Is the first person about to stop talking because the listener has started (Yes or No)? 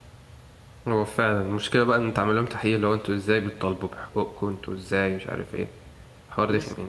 Yes